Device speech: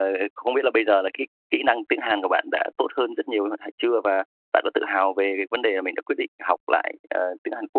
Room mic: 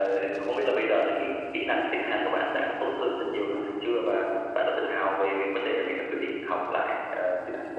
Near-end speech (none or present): none